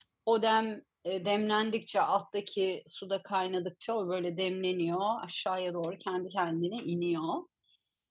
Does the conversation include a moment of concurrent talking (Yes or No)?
No